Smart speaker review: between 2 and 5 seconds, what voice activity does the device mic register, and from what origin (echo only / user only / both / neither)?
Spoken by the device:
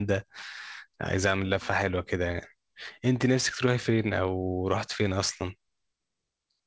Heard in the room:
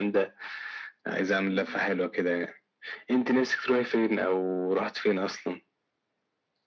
echo only